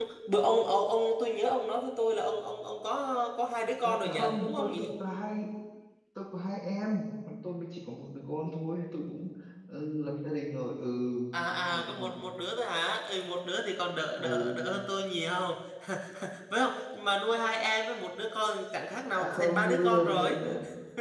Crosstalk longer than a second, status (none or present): present